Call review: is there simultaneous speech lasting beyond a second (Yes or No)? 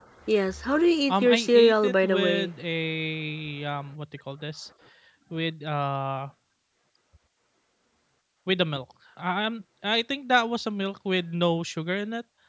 Yes